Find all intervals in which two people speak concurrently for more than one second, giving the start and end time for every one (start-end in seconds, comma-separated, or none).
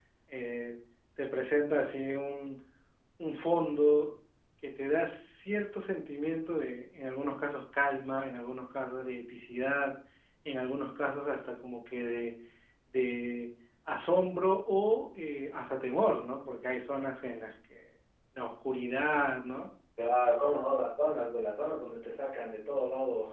none